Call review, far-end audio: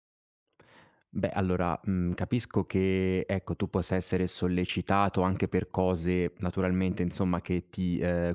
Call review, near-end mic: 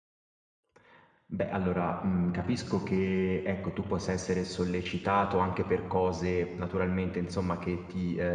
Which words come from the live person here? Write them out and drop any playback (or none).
none